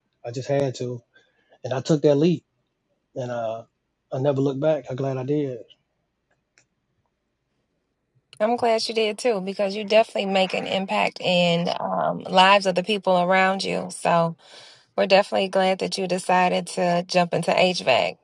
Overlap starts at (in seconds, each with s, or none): none